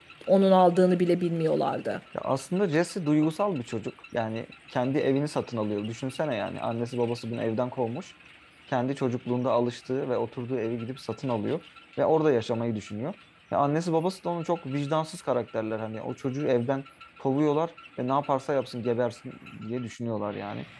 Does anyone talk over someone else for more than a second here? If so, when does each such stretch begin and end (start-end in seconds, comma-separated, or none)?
none